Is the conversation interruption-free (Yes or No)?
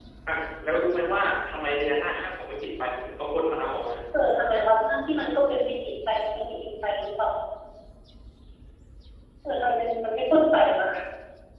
Yes